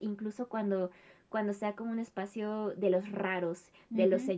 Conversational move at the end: listening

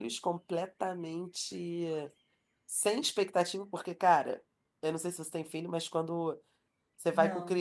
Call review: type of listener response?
listening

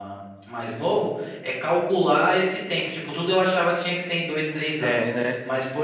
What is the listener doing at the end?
listening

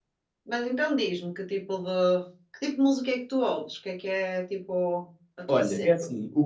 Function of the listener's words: taking over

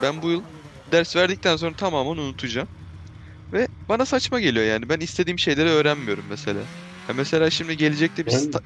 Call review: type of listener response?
listening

